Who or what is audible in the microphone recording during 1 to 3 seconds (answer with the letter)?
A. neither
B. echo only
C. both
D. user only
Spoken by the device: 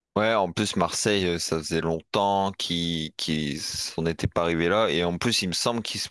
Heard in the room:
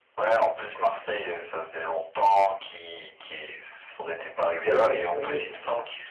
B